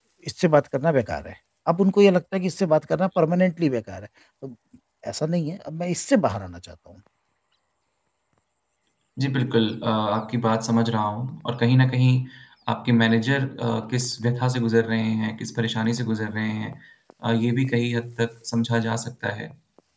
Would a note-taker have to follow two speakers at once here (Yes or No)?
No